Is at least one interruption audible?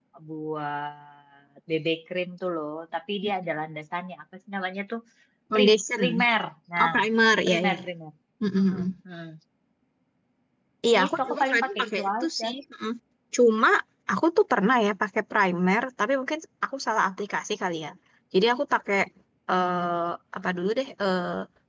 Yes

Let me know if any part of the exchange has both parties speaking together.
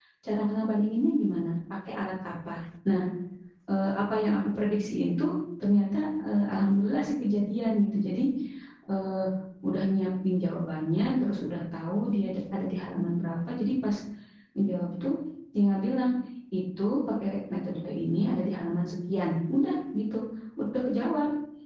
No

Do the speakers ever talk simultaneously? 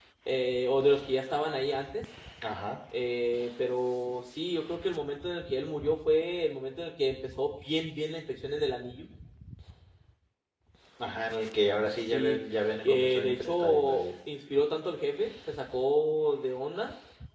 Yes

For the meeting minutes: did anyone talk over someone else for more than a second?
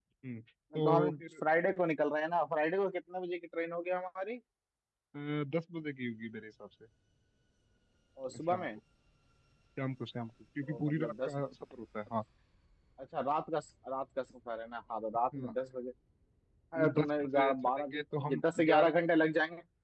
Yes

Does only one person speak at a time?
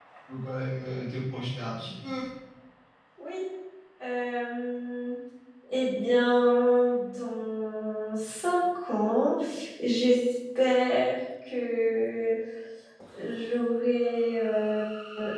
Yes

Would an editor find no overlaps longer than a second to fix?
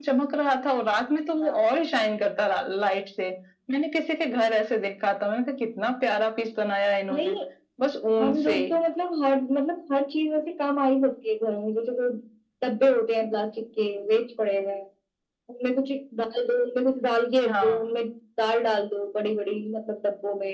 Yes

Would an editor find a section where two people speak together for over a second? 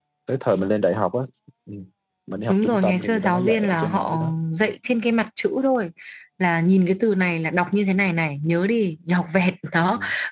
Yes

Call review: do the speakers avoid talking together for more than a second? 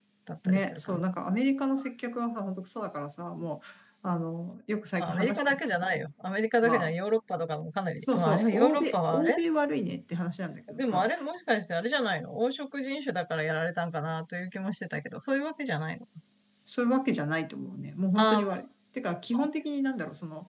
No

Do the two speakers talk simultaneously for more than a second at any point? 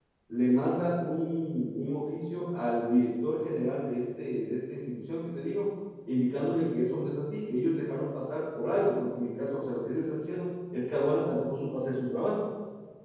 No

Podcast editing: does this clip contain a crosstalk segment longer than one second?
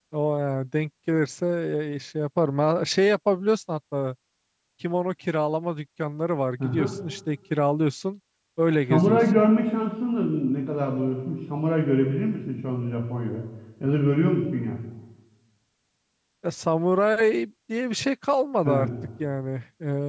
No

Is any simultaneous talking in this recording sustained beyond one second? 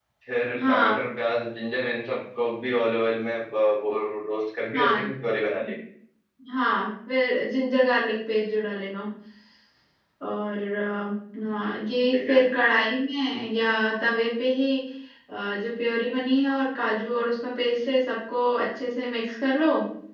No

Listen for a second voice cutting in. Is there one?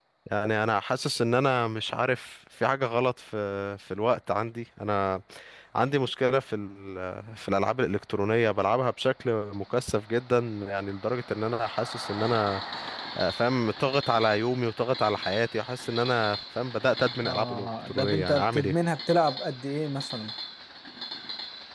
Yes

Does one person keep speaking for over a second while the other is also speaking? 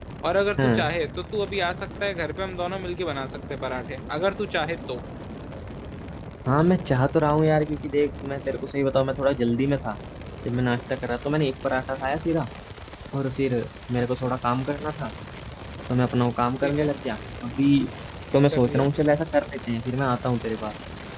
No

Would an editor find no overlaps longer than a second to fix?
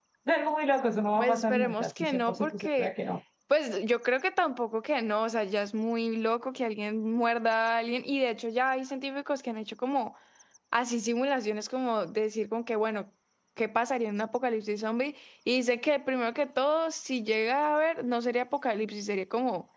No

